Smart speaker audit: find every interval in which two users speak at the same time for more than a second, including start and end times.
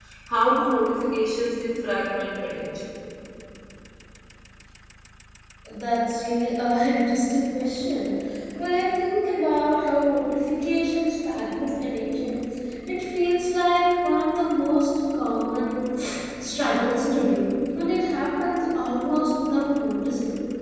none

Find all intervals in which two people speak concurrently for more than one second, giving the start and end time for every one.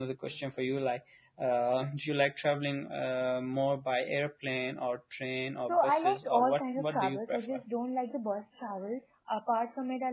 5.7-7.6

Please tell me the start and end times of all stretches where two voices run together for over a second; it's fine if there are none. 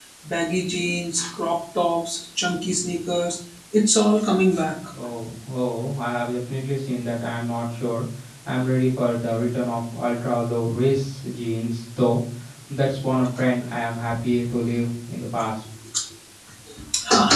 none

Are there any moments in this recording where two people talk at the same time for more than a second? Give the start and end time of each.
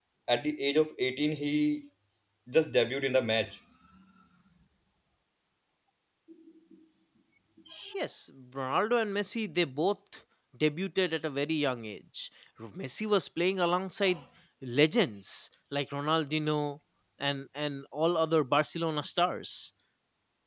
none

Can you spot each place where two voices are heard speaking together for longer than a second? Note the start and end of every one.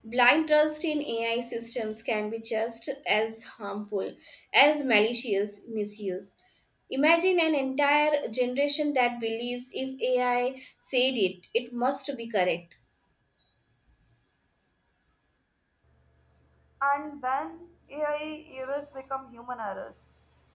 none

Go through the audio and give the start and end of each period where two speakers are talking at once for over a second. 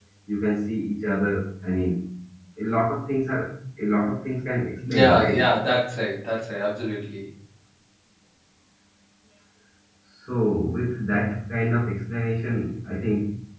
none

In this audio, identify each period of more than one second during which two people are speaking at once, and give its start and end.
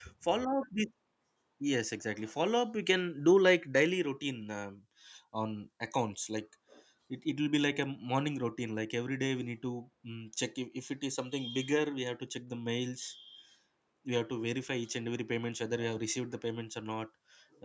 none

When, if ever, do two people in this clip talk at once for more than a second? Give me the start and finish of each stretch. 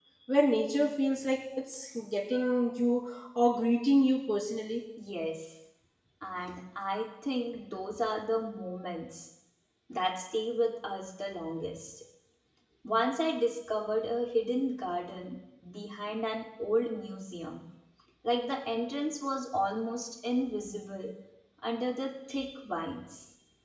none

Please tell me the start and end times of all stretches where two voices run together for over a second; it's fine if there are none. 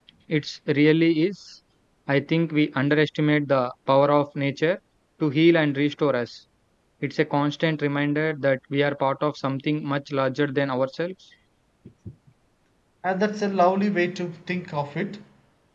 none

